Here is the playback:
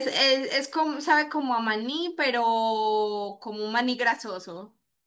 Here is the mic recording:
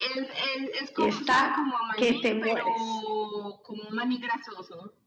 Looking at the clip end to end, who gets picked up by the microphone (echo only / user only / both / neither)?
both